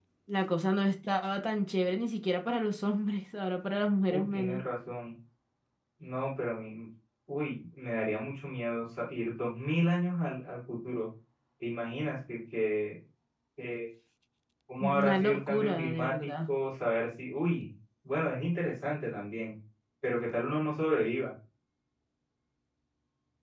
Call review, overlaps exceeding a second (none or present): present